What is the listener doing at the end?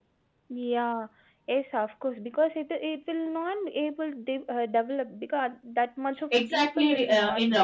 taking over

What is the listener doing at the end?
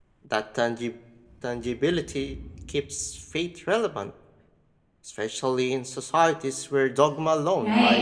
taking over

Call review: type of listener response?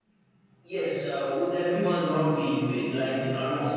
taking over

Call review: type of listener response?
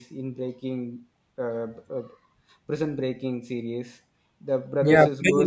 taking over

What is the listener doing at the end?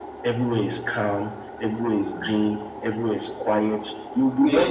listening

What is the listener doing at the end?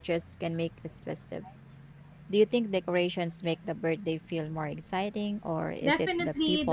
taking over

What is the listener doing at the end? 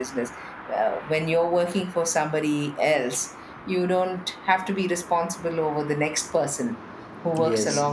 listening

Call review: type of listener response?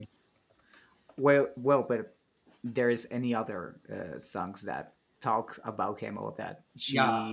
taking over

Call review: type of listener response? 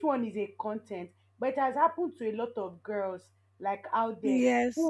listening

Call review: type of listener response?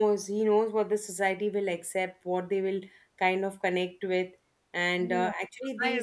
taking over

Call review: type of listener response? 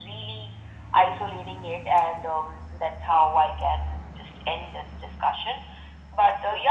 listening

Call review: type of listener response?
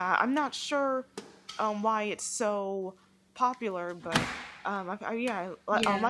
listening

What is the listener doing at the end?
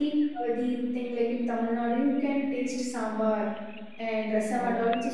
listening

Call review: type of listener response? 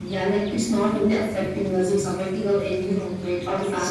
listening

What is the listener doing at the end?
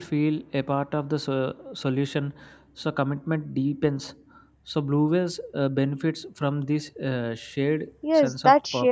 taking over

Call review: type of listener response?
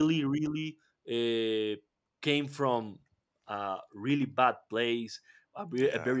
listening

